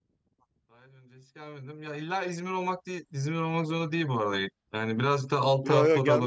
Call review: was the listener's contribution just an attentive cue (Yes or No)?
No